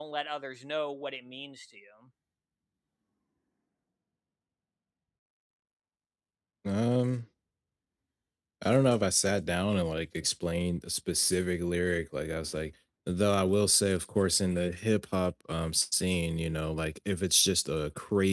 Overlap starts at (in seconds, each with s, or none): none